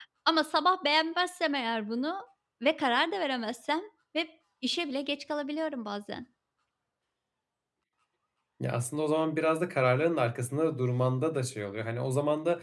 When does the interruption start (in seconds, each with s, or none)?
none